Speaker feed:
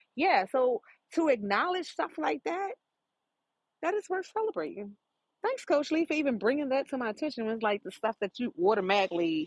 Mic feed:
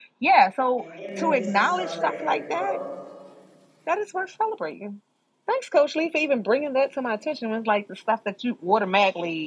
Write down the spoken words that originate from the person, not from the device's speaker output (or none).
And in the midst of celebrating your growth,